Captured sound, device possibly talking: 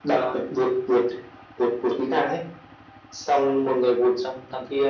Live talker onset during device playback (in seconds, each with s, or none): none